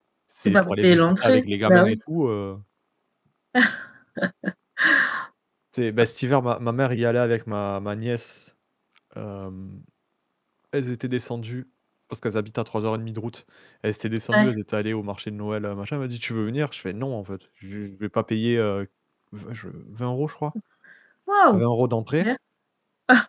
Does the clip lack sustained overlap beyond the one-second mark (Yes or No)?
No